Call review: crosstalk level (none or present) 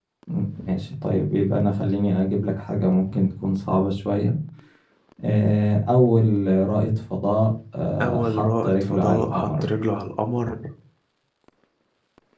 present